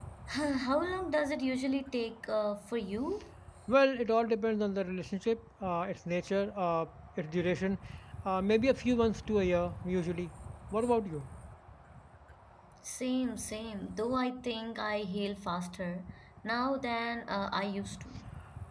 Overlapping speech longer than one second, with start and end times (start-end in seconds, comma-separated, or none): none